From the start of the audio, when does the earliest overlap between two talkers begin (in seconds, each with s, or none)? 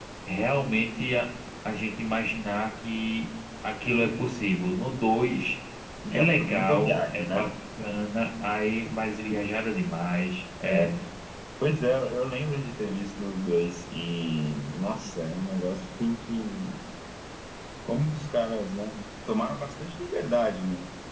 6.1 s